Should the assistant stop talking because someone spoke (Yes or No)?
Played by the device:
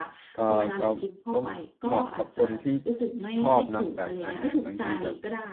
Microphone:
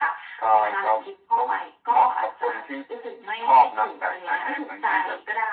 No